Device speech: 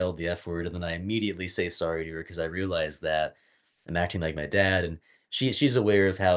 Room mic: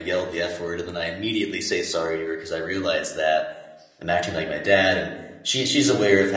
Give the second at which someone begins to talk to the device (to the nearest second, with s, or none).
none